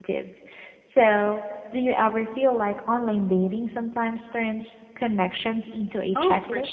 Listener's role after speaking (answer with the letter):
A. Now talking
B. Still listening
A